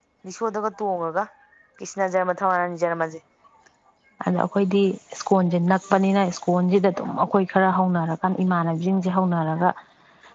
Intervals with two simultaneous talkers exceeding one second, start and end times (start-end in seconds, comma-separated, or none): none